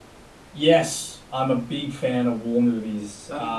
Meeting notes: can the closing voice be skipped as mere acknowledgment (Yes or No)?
Yes